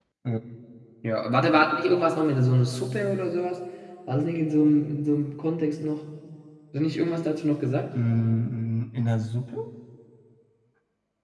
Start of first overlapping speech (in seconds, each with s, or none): none